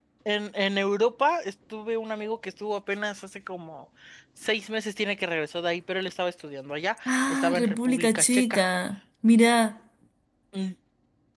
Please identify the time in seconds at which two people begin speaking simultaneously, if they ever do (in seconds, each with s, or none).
7.1 s